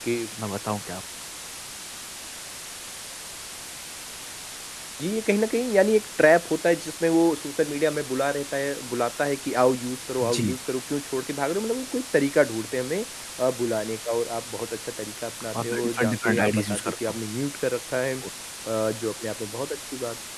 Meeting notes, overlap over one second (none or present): present